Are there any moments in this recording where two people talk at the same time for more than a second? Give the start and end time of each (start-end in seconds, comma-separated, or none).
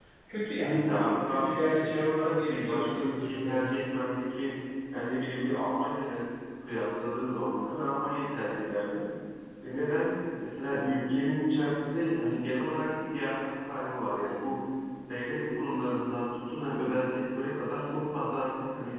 0.6-3.7